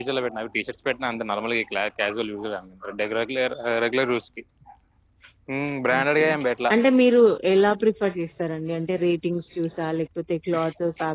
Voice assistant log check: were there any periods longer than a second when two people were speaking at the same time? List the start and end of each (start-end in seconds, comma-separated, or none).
none